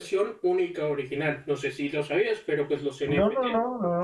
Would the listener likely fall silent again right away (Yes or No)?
No